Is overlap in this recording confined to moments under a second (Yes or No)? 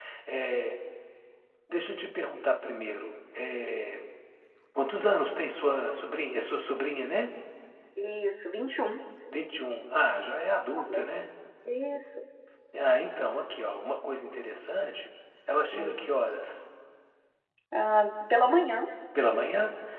Yes